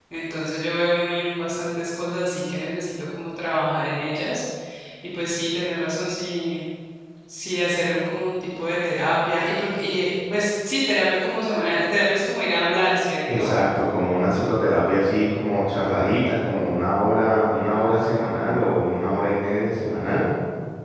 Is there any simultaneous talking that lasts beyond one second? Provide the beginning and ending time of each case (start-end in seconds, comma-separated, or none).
none